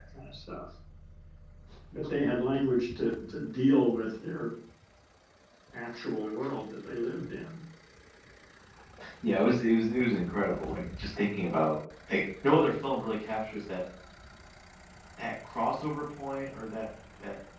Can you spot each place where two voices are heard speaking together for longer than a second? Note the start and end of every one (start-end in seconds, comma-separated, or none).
none